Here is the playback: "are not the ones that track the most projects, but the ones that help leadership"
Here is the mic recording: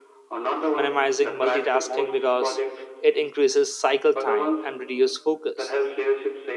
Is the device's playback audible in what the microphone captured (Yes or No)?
Yes